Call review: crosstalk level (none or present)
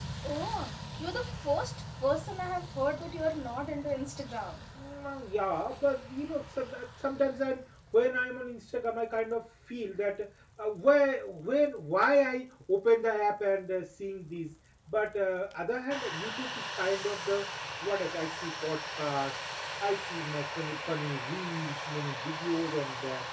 none